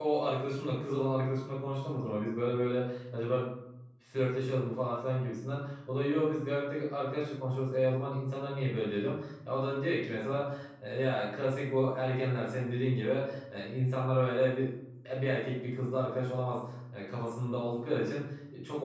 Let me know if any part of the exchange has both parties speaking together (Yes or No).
No